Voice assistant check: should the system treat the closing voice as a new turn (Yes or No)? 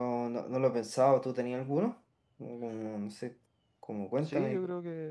Yes